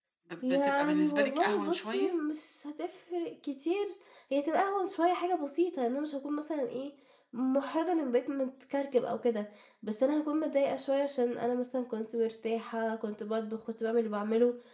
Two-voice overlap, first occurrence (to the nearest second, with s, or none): 1 s